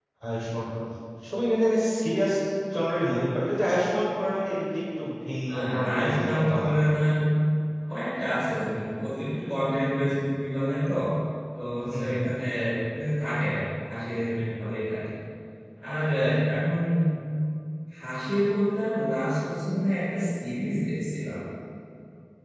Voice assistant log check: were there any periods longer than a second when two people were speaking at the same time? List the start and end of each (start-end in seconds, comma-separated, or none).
5.5-6.7